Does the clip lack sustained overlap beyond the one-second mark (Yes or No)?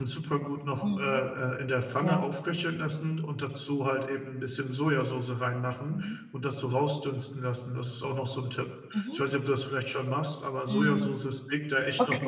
Yes